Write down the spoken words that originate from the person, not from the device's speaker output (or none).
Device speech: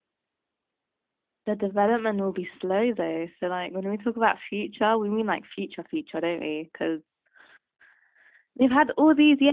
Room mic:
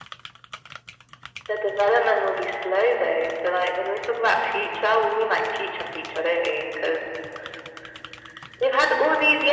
none